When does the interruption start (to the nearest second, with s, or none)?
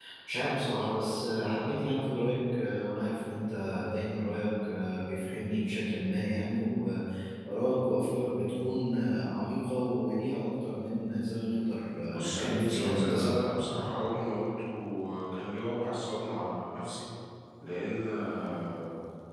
12 s